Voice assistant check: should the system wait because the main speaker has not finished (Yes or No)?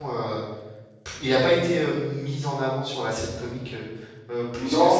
No